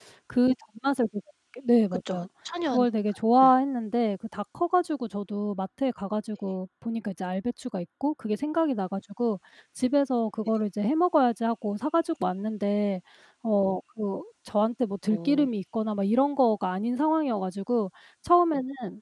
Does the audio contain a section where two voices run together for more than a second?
No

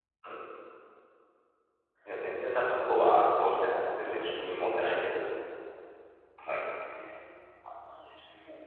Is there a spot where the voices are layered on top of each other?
Yes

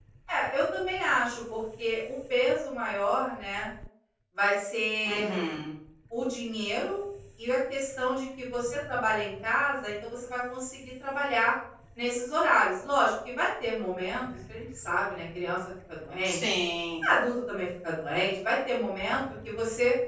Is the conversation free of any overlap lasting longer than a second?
Yes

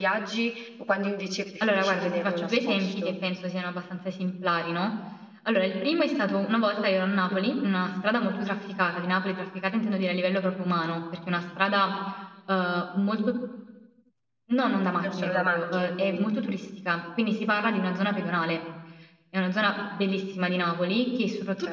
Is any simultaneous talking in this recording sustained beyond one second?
Yes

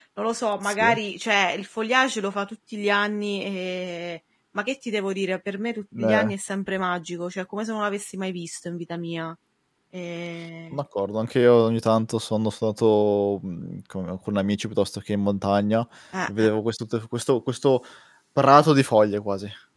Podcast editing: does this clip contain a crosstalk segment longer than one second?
No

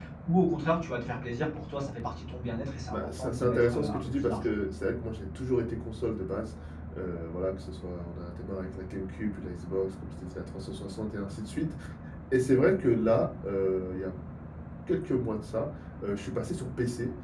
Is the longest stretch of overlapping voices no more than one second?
No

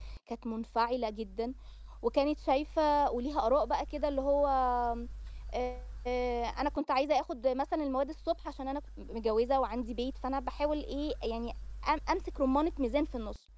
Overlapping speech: No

